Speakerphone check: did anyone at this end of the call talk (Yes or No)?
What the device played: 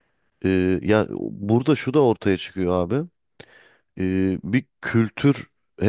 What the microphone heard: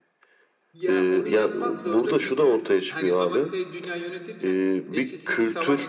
Yes